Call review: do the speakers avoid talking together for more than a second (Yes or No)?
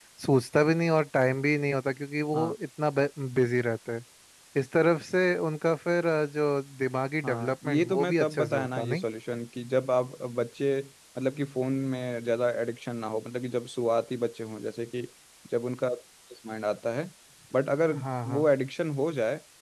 No